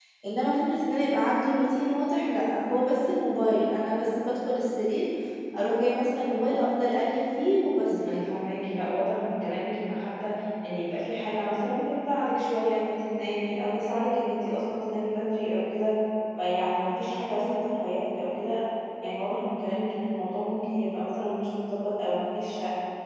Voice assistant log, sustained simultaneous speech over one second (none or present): none